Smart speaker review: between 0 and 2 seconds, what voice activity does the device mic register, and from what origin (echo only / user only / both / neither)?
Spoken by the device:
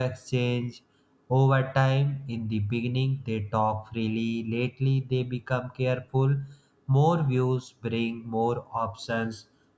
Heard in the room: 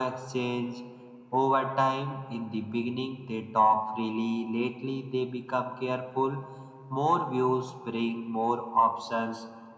echo only